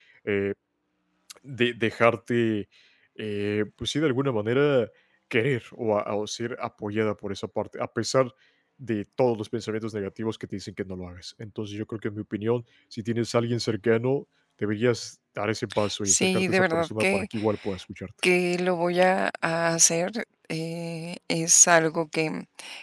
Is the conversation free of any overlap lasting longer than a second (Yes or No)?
No